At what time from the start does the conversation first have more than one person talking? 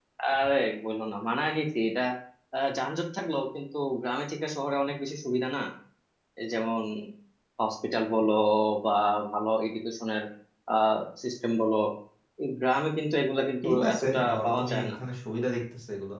13.6 s

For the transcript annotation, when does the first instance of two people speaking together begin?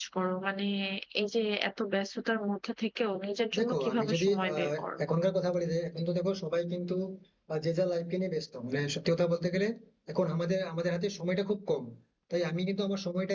3.5 s

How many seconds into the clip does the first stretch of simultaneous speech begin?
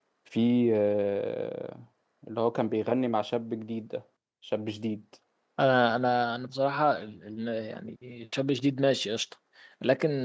none

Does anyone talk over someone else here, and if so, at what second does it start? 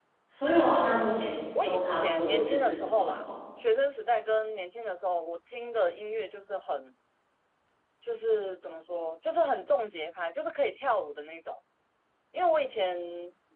1.6 s

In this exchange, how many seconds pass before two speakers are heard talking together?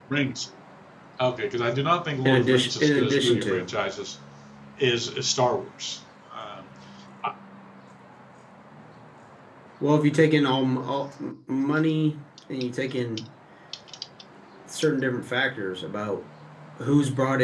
2.2 s

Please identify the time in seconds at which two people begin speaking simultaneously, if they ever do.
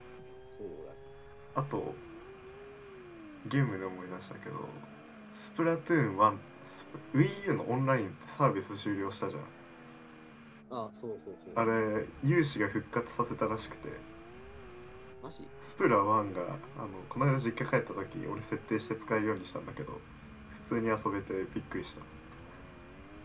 none

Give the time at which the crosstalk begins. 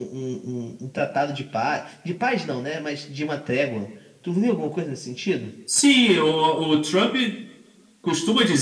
none

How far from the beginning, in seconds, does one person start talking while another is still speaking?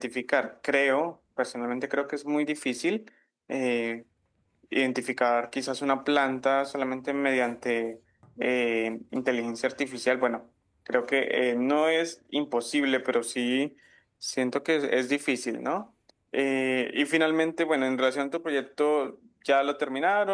none

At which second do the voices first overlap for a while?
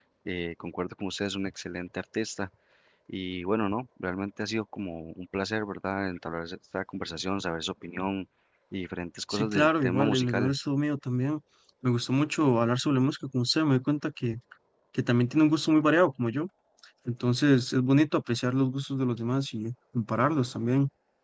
9.3 s

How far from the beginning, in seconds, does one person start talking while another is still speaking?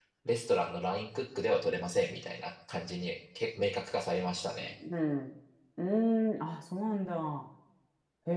none

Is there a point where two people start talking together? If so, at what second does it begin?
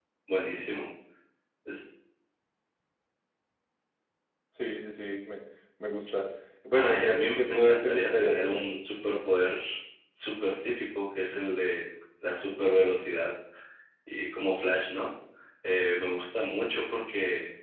6.7 s

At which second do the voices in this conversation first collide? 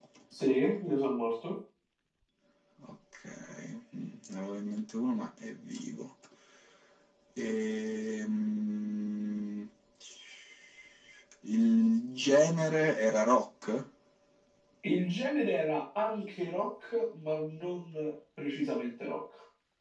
none

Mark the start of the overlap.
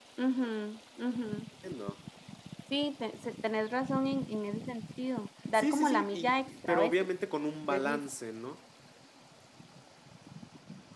5.5 s

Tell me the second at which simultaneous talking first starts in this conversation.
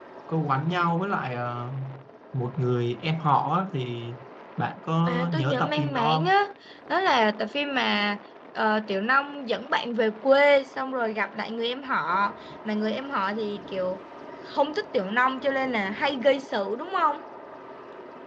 5.1 s

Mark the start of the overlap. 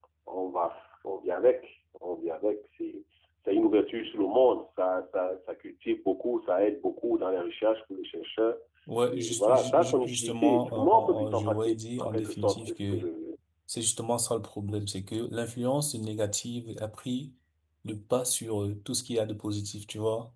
9.1 s

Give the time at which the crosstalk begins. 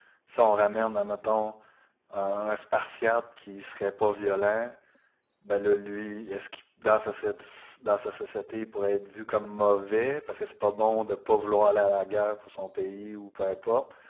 none

